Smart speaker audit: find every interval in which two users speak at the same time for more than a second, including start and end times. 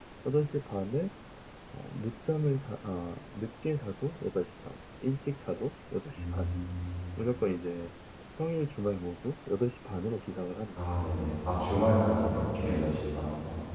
none

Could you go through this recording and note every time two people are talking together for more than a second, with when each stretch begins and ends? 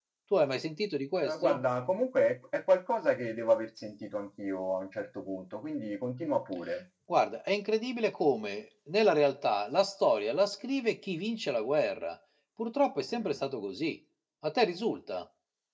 none

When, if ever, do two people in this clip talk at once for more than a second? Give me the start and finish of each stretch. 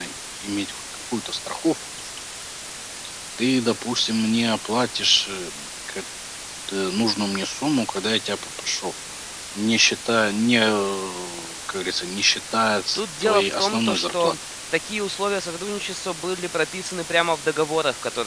12.9-14.3

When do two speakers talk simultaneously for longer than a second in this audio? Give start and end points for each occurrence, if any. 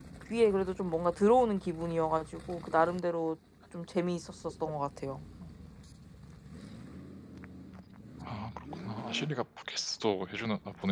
none

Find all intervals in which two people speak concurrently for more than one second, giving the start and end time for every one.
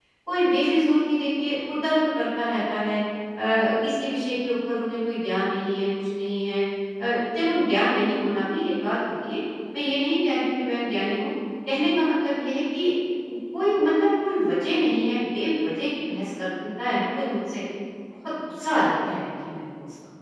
none

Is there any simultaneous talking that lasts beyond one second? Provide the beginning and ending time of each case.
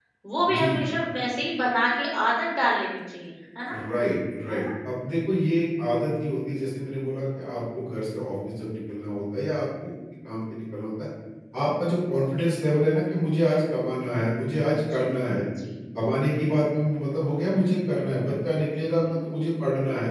none

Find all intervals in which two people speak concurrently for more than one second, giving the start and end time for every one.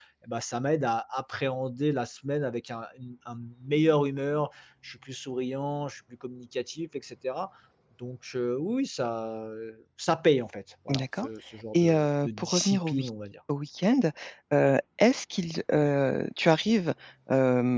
11.7-13.1

